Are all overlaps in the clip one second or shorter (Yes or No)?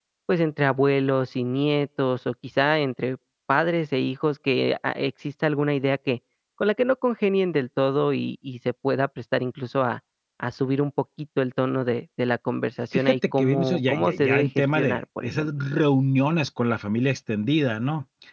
No